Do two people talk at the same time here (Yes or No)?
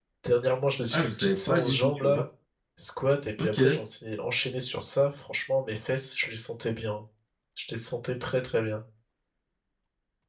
Yes